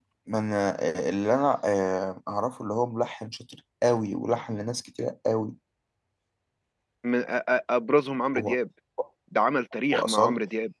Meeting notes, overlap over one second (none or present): none